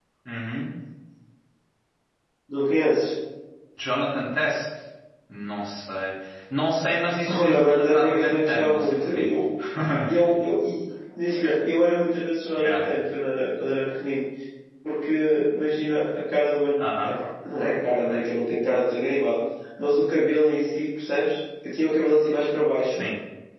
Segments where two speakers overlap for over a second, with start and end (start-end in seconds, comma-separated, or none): 7.4-9.3